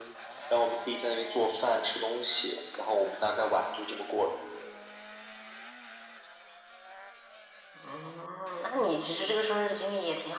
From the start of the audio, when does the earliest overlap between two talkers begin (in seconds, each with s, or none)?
none